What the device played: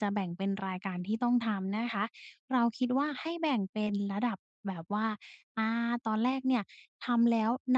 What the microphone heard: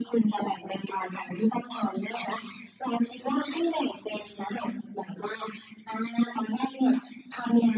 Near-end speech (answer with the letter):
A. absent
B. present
A